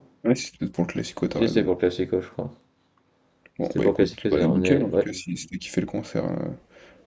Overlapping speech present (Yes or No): Yes